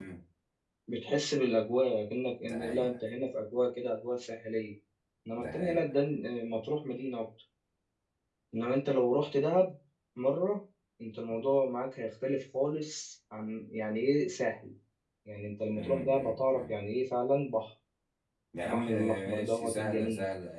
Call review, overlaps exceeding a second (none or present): present